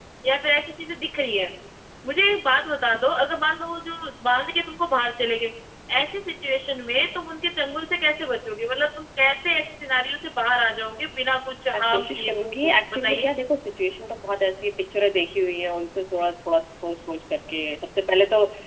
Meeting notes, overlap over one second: present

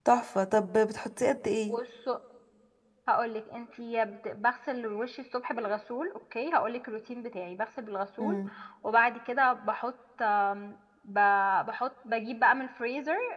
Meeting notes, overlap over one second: none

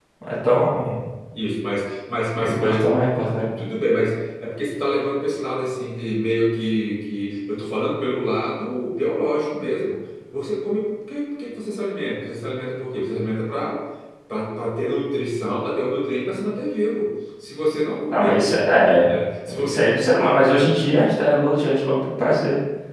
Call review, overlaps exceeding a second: none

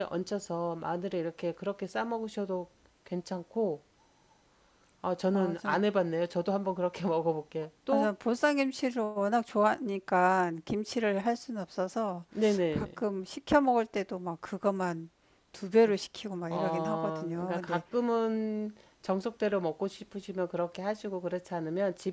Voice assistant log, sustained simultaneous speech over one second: present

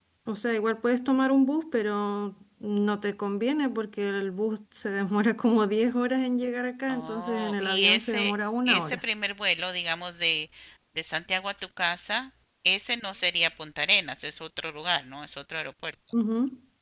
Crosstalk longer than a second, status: present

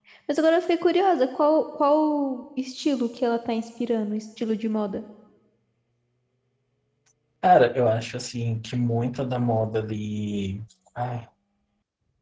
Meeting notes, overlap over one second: none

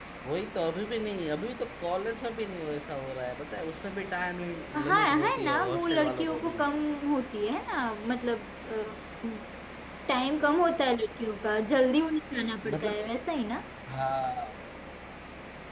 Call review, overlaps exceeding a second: present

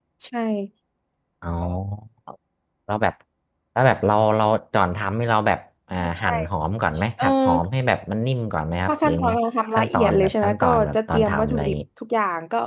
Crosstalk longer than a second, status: present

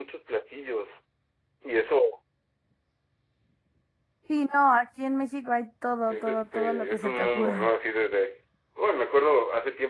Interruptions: present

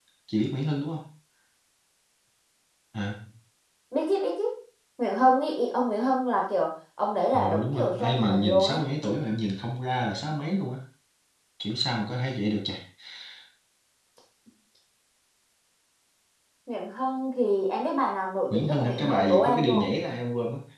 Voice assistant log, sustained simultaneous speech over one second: present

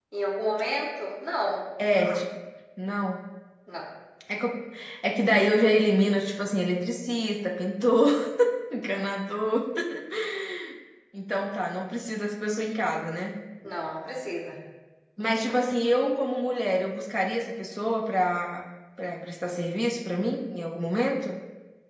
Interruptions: none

